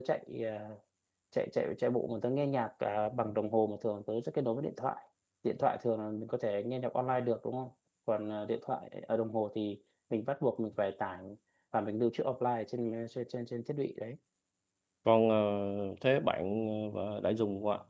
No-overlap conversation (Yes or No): Yes